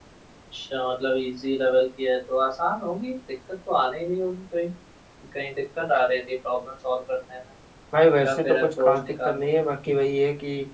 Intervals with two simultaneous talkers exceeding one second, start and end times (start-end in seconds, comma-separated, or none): 8.3-9.5